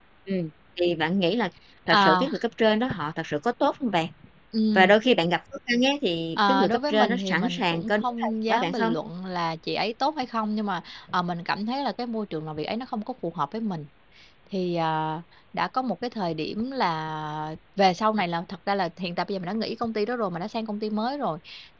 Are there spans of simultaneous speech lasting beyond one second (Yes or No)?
Yes